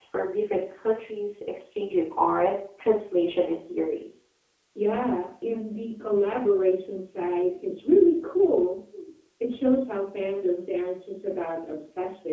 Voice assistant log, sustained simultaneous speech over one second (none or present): none